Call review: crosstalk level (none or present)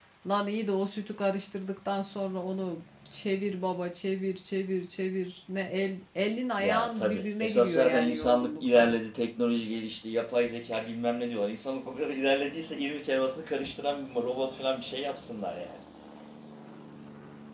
present